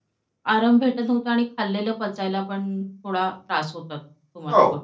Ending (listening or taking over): taking over